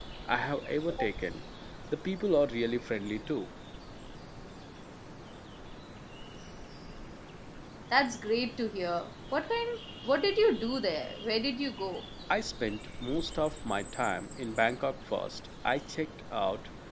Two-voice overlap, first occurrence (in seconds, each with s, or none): none